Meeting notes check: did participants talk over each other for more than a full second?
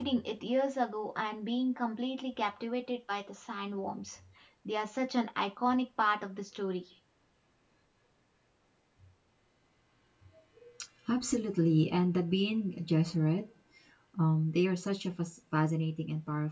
No

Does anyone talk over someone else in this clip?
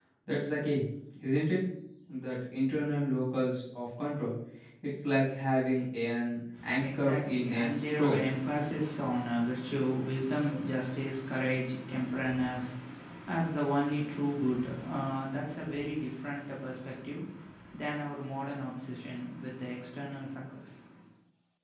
Yes, from 6.6 s

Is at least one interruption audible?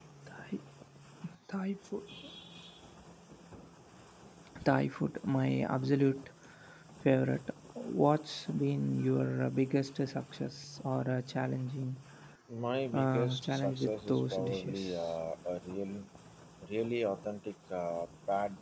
Yes, from 12.9 s

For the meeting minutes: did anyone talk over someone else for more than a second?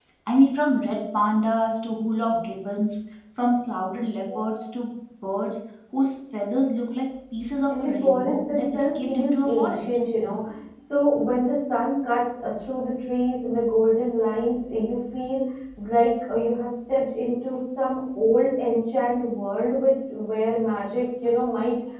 Yes, from 7.7 s

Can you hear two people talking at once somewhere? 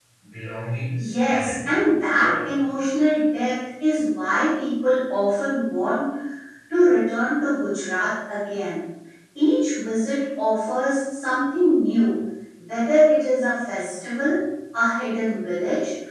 Yes, from 1.0 s

